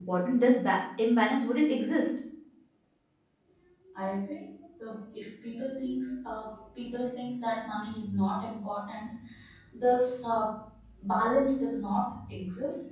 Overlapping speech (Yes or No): No